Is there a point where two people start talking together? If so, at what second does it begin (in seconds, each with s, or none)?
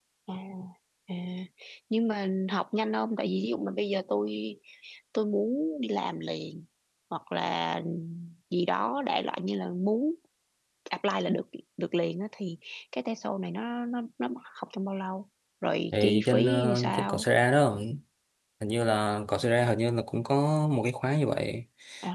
15.9 s